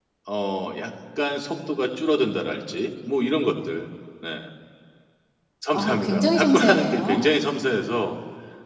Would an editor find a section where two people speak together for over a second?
Yes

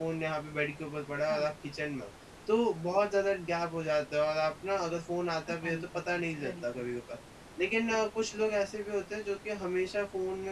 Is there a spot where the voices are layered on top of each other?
Yes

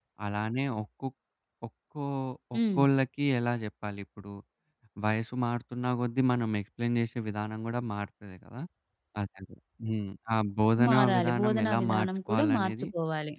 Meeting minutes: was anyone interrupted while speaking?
Yes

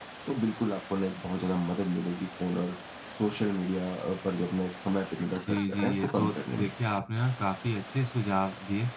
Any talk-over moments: Yes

